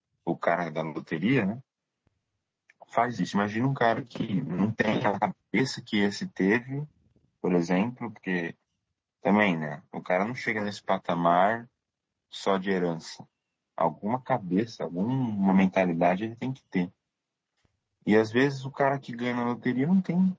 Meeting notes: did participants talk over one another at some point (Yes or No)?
No